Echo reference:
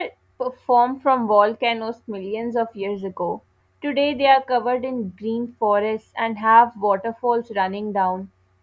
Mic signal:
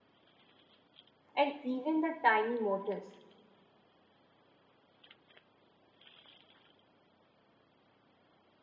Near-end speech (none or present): present